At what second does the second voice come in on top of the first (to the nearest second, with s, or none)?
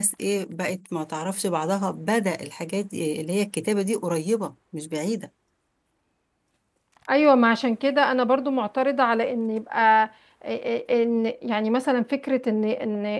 none